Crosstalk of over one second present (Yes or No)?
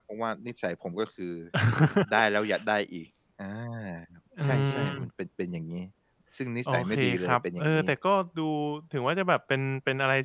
Yes